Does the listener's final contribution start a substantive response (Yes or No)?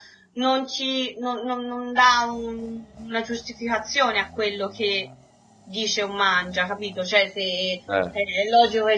No